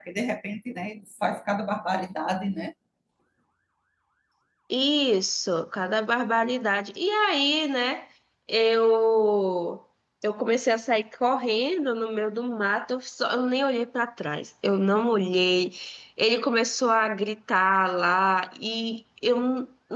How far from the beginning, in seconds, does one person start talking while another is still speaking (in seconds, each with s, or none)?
none